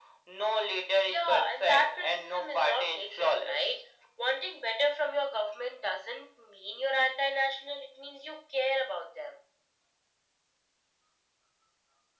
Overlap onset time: 1.1 s

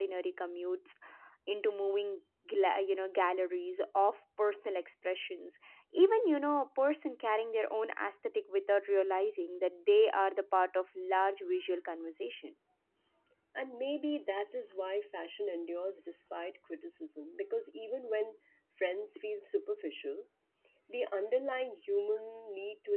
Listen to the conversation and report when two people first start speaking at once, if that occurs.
none

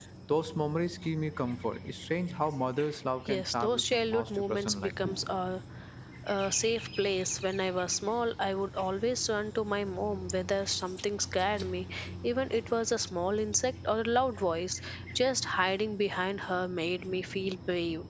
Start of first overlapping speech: 3.3 s

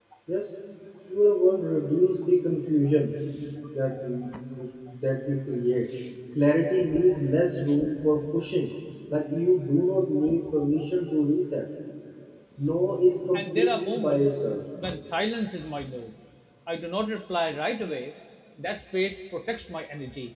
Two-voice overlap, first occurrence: 13.3 s

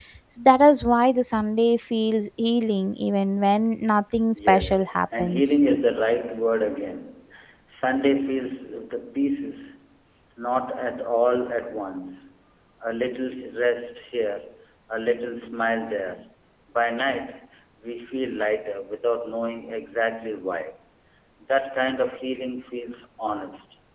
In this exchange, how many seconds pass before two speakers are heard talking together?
4.4 s

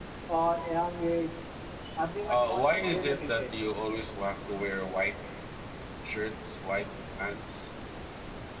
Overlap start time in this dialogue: 2.2 s

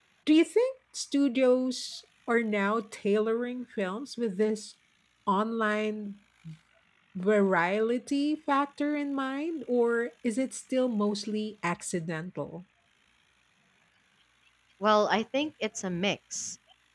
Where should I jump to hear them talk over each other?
none

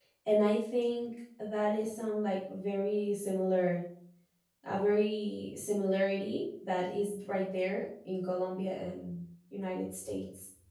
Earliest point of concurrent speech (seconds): none

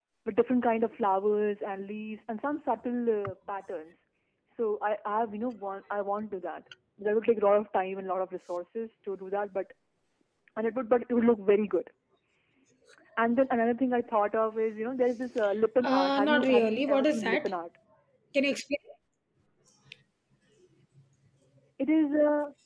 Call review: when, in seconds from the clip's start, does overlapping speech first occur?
15.8 s

